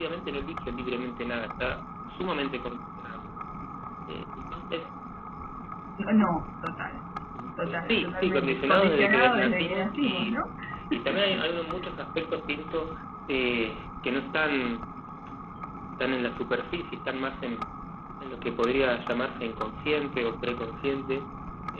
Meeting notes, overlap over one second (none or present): present